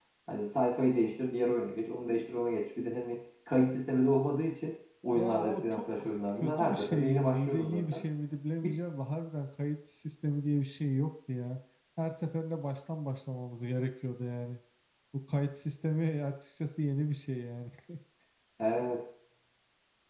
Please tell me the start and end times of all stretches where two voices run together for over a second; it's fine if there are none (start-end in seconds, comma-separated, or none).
5.1-8.0